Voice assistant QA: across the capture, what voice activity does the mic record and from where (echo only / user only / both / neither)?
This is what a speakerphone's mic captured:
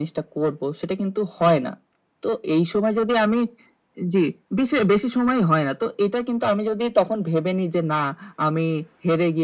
echo only